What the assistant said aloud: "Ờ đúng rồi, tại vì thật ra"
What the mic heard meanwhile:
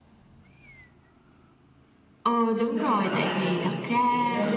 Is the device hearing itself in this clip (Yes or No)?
Yes